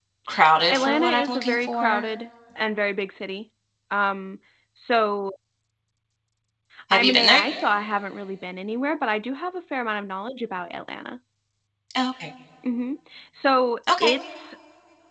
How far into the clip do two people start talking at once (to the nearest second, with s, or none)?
1 s